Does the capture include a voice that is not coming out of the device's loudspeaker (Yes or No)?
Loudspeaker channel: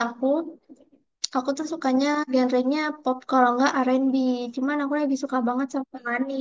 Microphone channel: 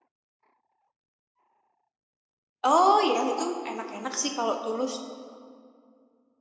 Yes